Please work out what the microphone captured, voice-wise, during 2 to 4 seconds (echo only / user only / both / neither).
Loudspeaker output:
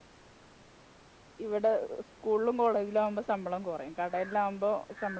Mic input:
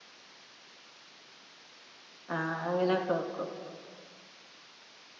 user only